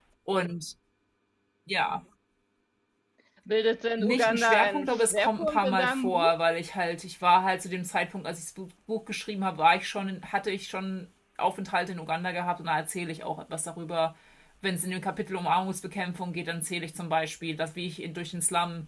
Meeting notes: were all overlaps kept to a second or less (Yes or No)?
No